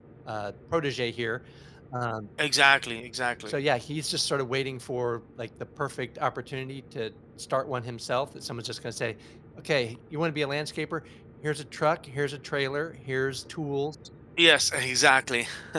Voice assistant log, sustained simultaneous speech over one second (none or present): none